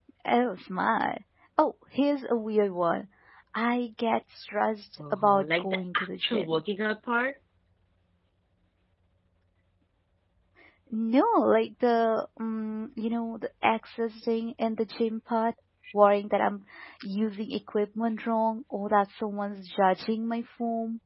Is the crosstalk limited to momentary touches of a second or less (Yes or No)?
No